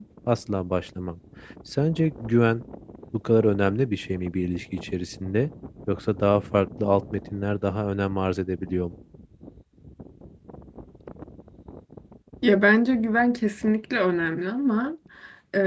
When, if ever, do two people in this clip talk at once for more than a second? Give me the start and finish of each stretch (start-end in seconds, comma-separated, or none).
none